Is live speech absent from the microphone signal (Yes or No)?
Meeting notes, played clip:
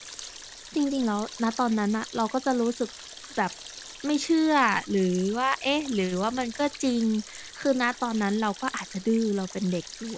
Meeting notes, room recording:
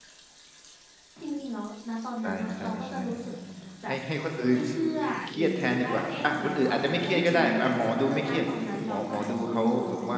No